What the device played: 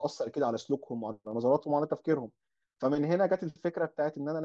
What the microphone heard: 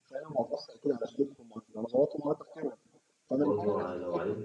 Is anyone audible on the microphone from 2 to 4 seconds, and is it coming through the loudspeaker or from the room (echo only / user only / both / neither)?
both